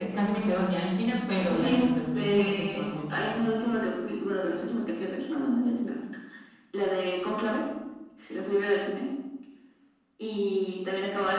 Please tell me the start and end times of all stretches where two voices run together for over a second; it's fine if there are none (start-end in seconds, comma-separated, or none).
1.4-3.3